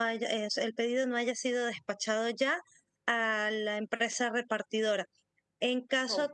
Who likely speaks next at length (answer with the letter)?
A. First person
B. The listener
A